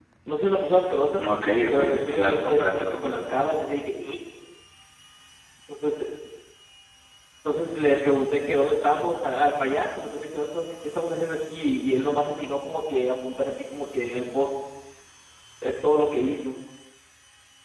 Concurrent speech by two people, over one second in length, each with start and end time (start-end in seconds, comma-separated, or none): 1.7-3.4